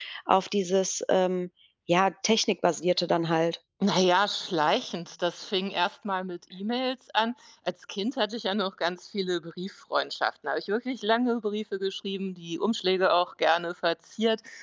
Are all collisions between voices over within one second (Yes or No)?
Yes